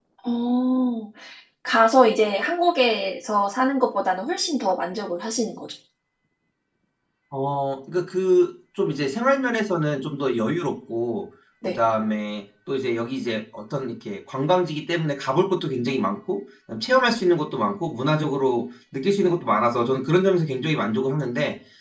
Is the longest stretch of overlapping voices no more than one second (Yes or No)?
Yes